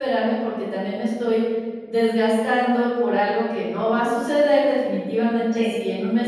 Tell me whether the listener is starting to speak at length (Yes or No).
No